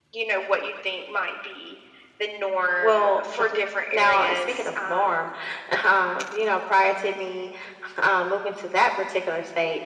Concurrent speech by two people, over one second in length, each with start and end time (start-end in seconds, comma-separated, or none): 3.9-5.3